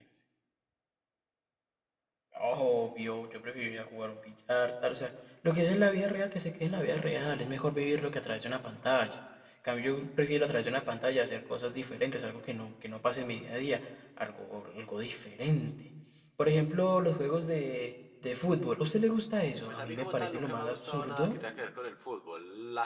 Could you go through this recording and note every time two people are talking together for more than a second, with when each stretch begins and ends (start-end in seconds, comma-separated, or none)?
19.7-21.4